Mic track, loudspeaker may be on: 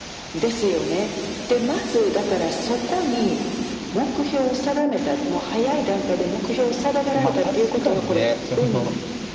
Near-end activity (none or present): present